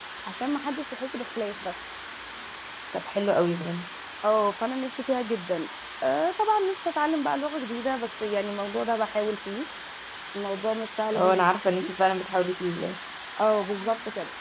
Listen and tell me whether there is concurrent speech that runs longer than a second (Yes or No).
No